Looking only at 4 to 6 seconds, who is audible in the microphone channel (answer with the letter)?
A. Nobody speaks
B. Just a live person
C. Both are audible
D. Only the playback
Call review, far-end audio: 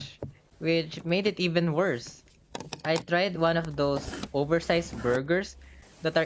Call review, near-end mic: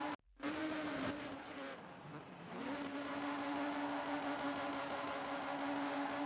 A